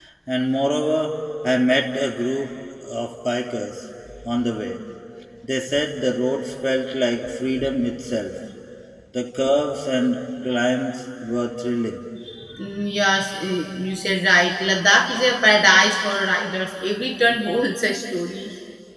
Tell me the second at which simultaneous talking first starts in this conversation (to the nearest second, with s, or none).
none